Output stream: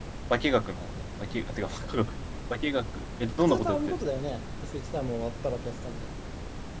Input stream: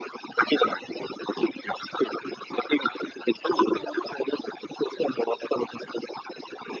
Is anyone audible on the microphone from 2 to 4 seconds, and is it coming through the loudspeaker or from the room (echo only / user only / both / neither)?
echo only